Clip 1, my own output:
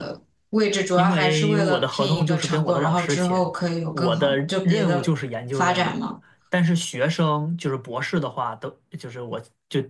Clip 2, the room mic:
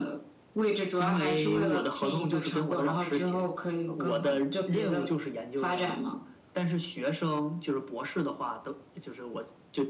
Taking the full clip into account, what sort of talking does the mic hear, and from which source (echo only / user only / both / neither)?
echo only